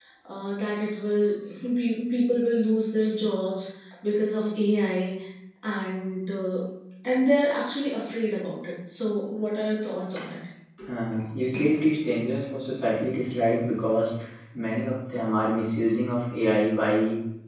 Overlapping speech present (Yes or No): No